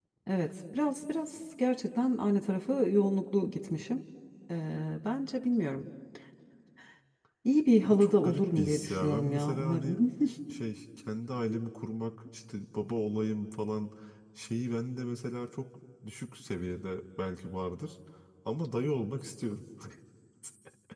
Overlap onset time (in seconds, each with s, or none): 7.9 s